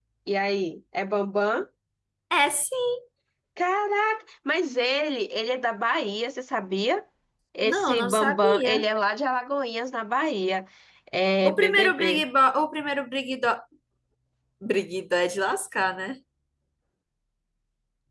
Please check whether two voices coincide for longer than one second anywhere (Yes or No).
Yes